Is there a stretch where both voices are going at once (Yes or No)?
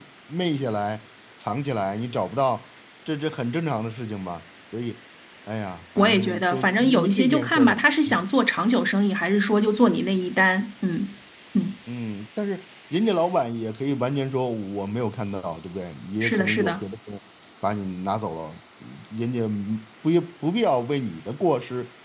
Yes